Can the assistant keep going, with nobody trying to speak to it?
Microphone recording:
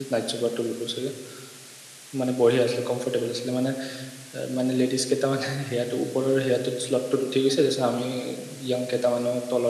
No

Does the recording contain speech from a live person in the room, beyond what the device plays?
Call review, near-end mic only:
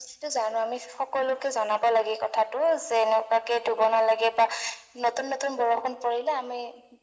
No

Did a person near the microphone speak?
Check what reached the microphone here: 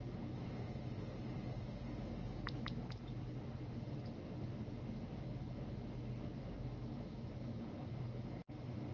No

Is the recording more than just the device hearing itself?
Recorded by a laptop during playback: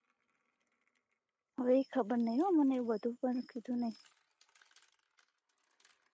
Yes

